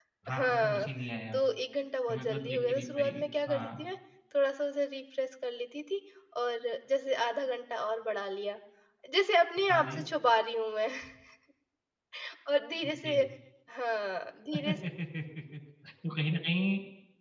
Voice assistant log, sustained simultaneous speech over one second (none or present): present